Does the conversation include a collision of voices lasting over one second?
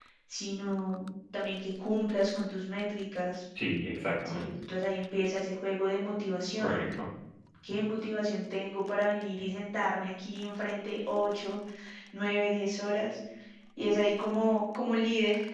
No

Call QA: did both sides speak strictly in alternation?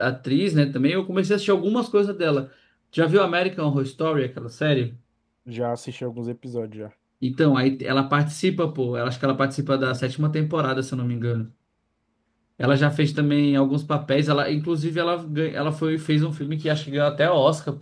Yes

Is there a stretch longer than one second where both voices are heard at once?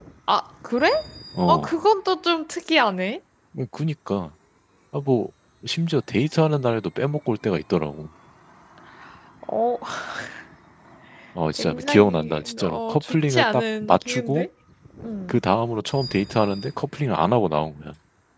Yes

